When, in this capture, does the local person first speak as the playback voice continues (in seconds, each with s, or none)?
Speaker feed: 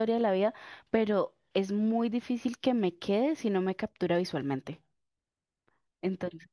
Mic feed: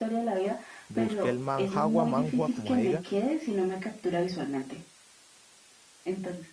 0.9 s